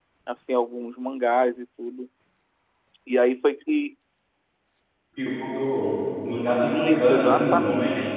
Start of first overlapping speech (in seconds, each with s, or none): 6.7 s